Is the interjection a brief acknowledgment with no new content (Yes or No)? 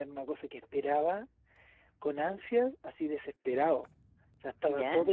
Yes